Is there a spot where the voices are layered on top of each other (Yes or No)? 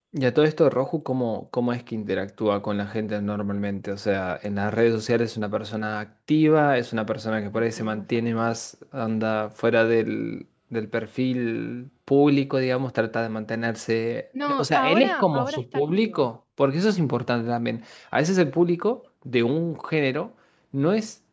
Yes